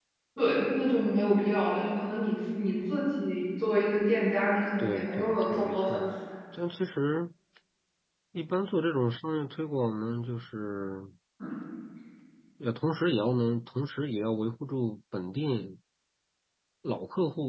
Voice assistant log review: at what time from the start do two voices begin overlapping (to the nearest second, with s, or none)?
5 s